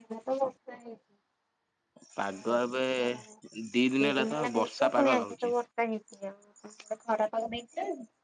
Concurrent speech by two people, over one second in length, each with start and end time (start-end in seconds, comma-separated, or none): 4.2-5.5